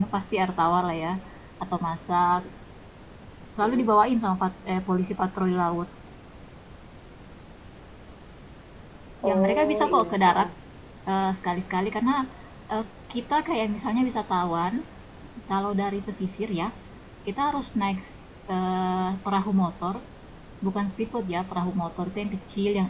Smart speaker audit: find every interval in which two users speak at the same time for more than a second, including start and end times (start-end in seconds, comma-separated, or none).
9.2-10.5